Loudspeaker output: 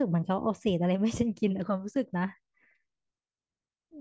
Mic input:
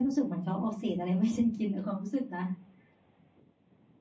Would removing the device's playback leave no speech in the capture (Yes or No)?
Yes